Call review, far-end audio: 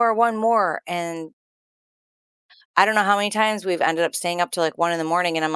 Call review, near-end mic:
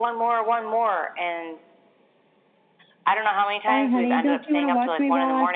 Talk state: both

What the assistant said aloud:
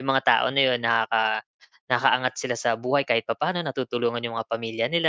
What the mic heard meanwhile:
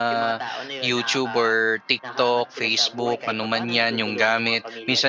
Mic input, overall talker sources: both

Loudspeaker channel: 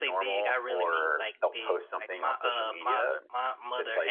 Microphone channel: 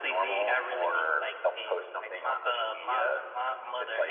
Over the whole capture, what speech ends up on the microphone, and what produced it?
echo only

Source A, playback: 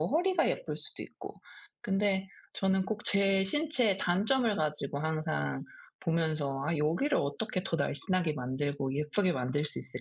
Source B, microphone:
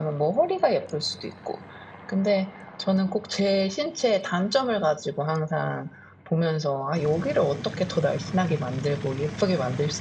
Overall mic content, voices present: echo only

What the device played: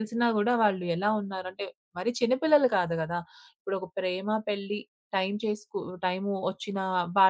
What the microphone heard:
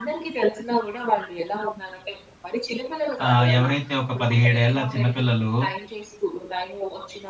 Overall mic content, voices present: both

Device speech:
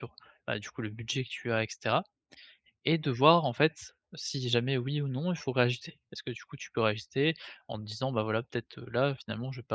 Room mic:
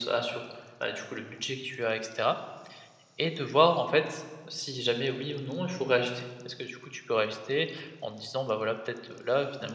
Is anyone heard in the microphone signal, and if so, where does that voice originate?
echo only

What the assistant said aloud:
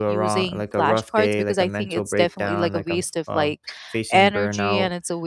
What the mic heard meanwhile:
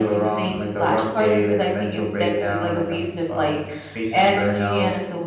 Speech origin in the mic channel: echo only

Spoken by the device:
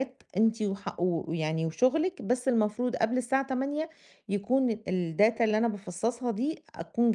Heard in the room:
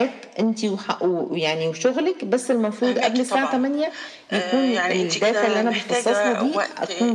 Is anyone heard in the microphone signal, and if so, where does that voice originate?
both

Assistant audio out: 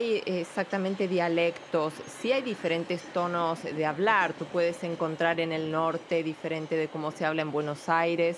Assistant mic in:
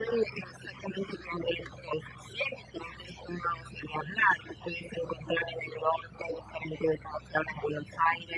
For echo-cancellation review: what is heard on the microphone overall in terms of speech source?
echo only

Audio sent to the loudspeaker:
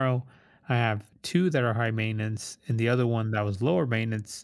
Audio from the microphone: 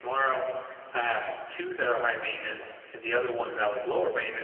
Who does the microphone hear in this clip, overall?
echo only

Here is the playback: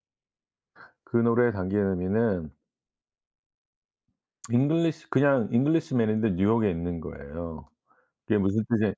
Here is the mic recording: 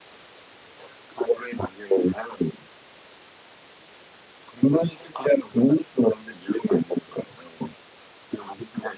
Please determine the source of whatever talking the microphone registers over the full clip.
echo only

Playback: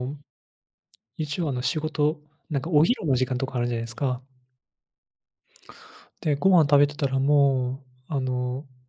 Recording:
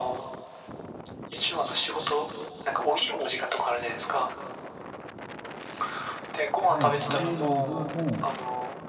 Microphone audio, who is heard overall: both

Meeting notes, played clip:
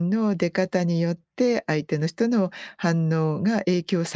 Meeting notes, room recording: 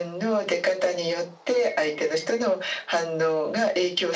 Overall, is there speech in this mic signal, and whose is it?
echo only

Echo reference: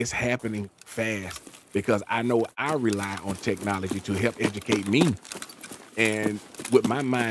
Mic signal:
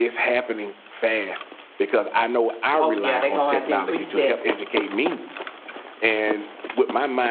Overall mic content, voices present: both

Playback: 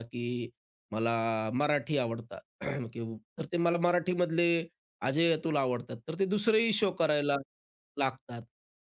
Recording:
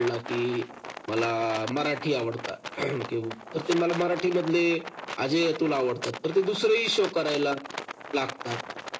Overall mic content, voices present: echo only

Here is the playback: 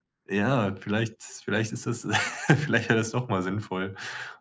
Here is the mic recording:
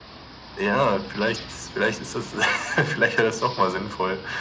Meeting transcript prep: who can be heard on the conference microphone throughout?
echo only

